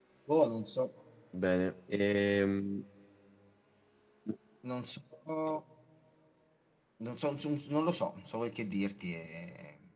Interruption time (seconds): none

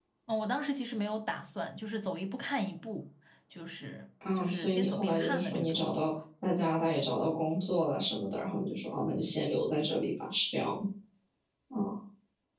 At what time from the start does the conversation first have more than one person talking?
4.3 s

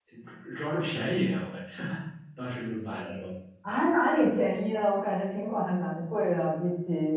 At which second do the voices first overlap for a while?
none

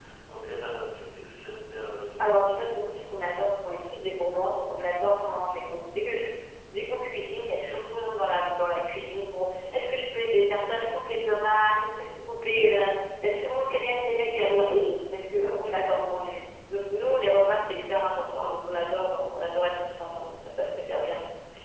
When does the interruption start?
none

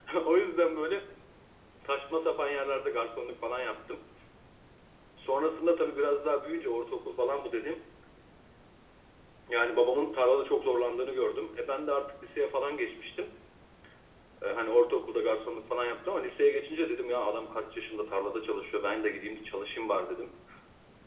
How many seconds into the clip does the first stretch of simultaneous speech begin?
none

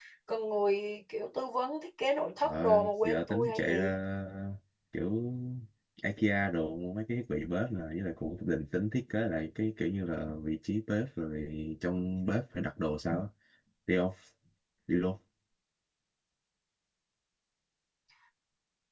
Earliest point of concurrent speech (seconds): 2.4 s

